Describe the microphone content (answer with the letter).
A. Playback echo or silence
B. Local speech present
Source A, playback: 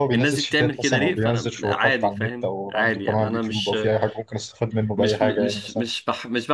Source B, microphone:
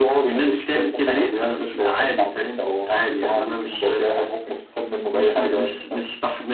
A